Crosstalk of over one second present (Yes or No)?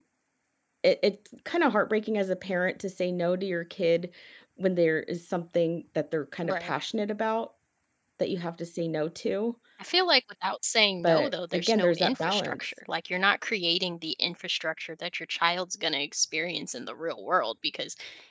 Yes